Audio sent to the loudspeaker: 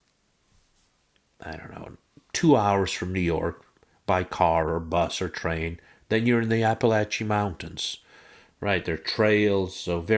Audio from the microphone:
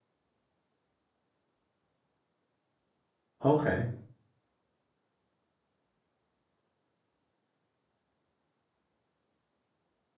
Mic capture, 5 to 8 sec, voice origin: neither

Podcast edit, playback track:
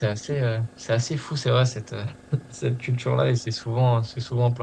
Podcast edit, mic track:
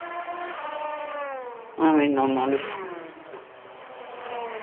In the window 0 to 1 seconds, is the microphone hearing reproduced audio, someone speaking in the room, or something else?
neither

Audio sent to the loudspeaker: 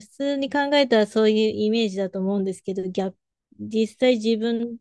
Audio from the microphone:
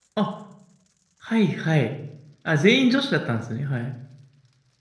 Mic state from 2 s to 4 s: user only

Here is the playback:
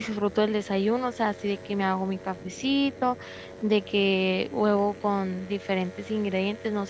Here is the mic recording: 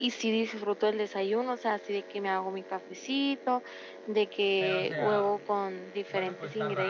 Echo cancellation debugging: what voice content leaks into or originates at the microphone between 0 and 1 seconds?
echo only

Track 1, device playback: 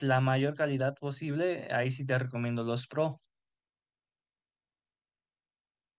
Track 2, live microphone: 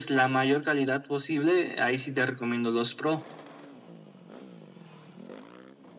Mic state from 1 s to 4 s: echo only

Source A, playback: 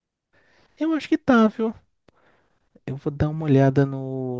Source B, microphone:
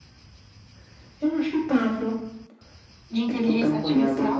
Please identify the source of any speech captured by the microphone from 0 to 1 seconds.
neither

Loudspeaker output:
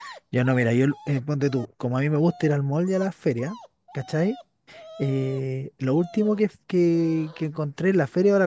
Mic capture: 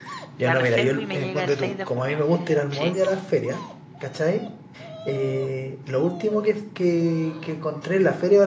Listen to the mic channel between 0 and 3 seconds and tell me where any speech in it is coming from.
both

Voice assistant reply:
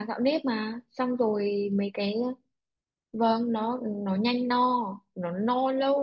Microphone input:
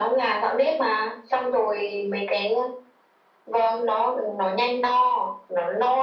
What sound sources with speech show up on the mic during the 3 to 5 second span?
echo only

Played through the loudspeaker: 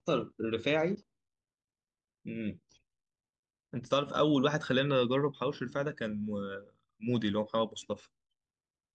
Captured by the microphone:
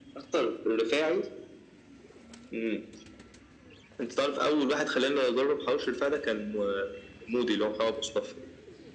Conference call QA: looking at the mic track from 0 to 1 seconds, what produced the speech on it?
echo only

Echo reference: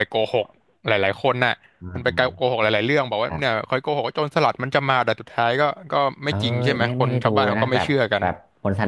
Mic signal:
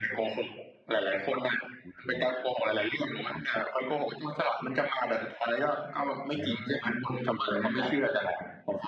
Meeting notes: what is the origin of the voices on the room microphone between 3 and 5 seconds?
echo only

